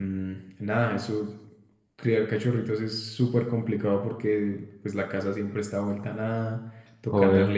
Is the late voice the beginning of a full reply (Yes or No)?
No